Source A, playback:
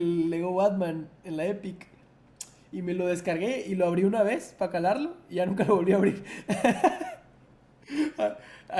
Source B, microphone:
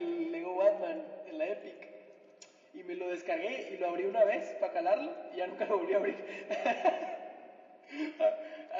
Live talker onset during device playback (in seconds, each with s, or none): none